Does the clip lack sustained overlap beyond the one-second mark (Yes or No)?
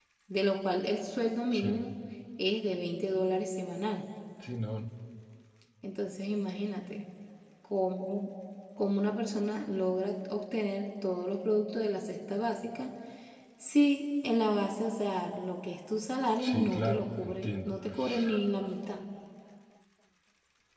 No